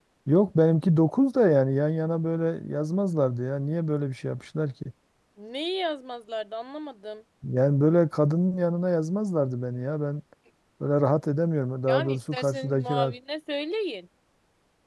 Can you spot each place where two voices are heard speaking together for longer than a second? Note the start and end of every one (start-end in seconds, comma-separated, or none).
11.9-13.1